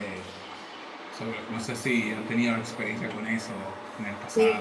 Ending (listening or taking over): taking over